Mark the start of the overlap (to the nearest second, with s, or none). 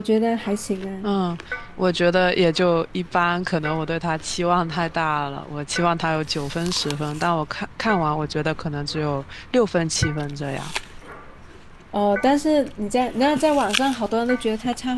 none